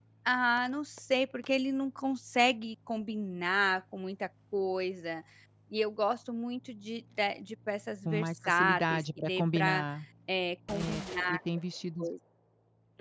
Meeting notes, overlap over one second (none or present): present